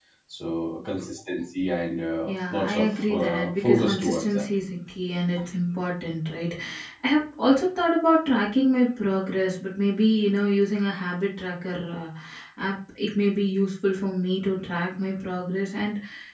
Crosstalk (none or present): present